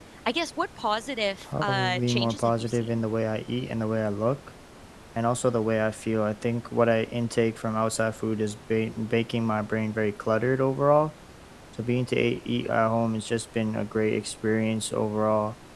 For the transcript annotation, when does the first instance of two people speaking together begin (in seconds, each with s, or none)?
1.4 s